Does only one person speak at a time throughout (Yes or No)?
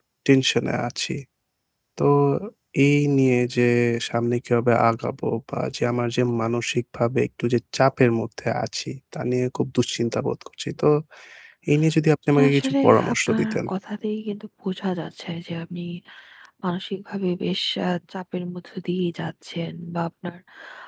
No